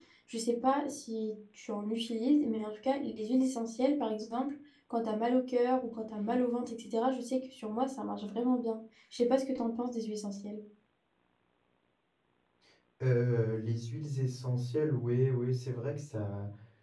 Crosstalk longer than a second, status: none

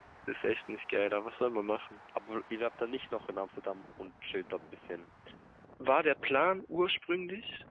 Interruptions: none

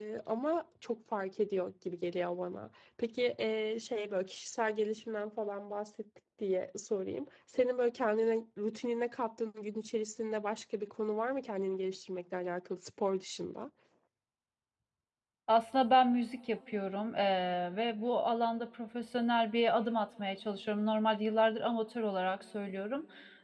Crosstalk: none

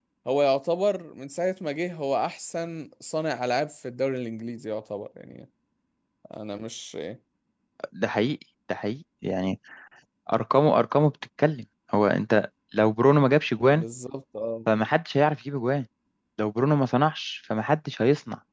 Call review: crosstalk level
none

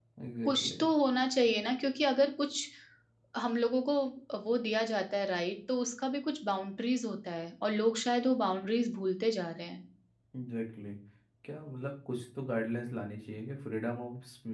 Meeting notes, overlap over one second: none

